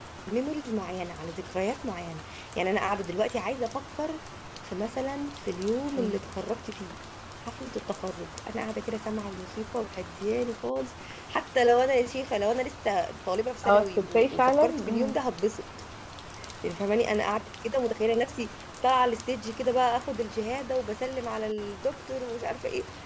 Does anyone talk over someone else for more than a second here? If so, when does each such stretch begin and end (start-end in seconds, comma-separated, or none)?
13.6-15.2